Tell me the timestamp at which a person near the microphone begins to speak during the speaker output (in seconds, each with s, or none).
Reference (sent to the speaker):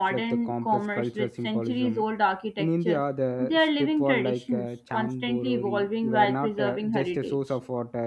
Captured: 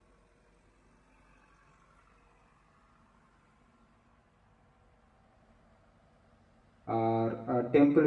6.8 s